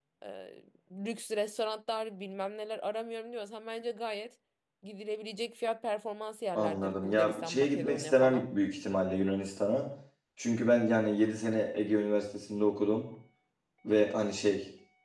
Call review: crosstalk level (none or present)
present